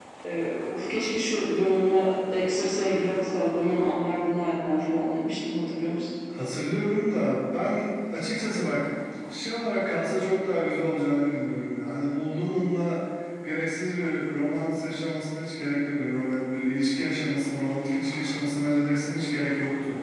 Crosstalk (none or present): none